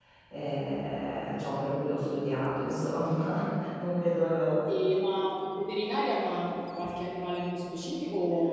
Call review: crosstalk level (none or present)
none